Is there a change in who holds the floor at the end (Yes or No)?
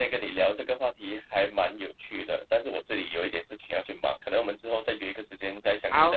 Yes